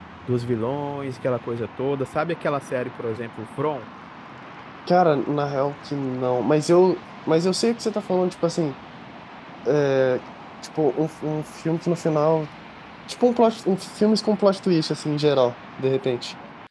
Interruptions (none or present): none